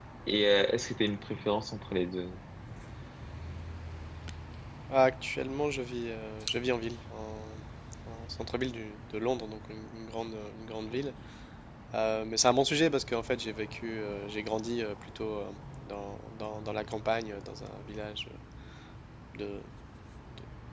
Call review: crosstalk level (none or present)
none